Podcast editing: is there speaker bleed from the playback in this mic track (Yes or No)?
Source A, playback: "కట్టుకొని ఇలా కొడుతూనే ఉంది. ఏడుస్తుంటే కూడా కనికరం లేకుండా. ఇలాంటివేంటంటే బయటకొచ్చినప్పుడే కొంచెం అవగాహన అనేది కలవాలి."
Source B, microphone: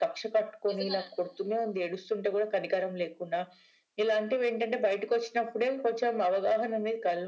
Yes